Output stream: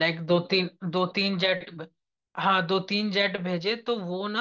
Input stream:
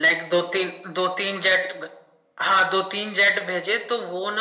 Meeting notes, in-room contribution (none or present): none